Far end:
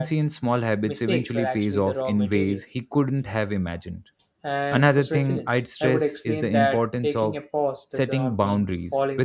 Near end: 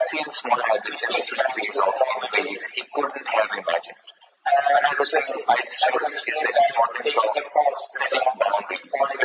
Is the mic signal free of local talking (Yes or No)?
Yes